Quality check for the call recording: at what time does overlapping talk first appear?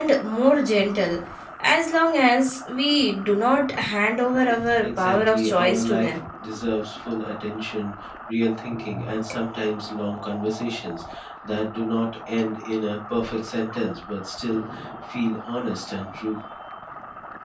4.8 s

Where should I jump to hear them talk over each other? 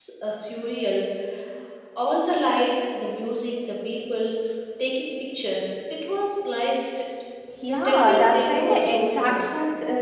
7.6 s

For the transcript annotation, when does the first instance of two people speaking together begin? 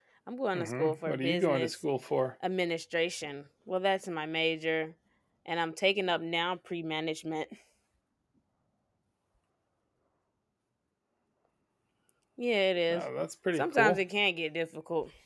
0.5 s

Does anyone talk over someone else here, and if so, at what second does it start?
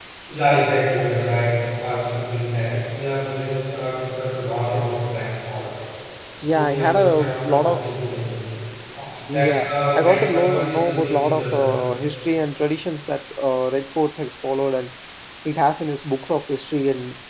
6.4 s

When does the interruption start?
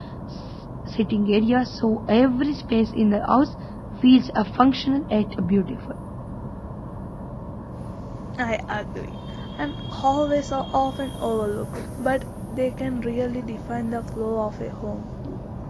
none

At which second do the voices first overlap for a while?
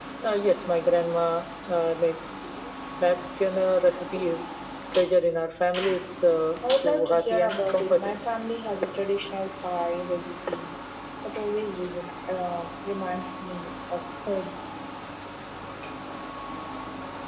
6.6 s

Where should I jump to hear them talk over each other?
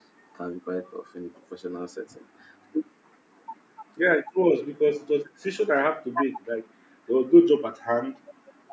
none

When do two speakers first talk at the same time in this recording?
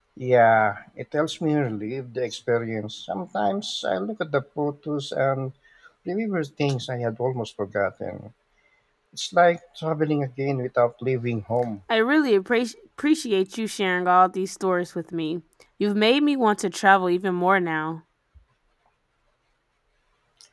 none

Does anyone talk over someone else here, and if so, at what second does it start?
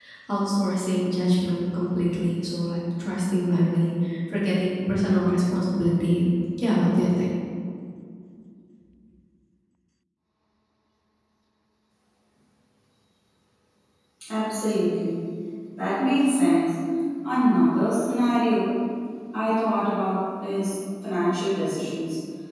none

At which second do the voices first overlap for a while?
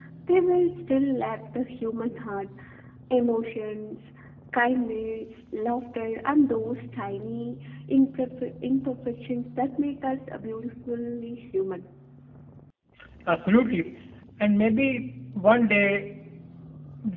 none

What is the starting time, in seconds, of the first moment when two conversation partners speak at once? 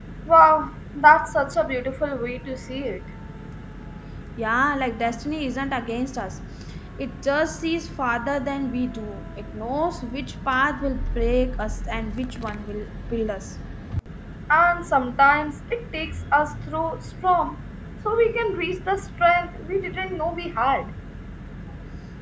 none

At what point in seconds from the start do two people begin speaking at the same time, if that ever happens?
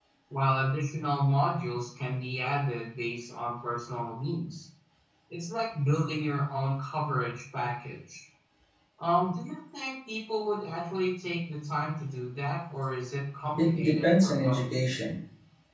13.6 s

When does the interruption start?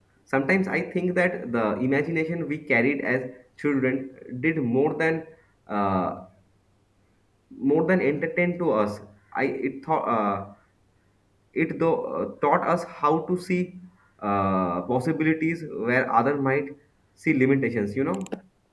none

